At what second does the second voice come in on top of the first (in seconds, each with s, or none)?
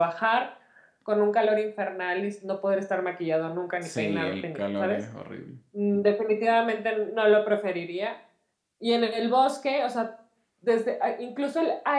3.8 s